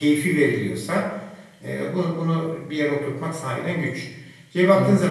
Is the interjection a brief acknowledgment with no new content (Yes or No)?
Yes